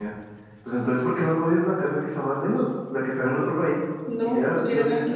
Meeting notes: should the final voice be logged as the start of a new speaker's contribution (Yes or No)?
Yes